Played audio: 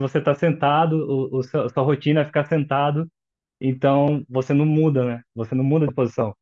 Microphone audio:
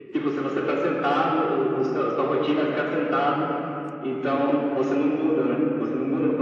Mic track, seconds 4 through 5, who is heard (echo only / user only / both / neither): echo only